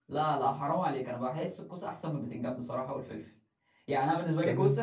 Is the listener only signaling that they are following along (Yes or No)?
Yes